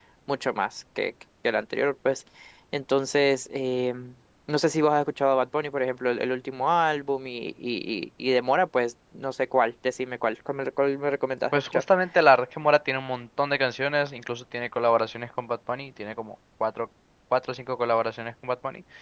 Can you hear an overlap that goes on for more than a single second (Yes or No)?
No